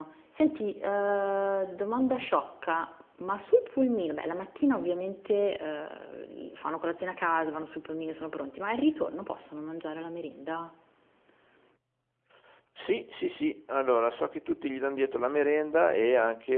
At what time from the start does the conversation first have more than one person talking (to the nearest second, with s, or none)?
none